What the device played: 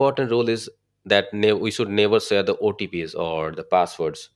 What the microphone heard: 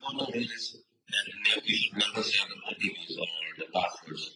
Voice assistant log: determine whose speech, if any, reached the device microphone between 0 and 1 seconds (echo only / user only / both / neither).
echo only